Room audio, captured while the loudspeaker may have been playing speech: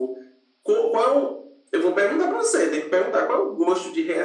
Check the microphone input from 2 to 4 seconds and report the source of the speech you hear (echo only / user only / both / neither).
echo only